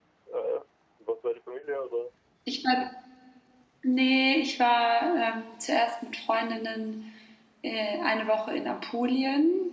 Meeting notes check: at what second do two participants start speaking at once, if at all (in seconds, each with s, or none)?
none